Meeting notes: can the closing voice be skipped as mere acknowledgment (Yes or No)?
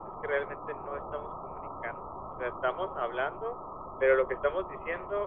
Yes